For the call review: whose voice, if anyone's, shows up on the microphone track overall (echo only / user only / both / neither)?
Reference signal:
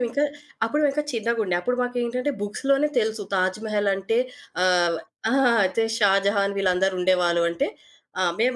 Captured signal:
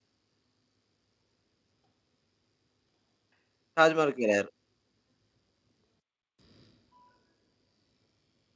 user only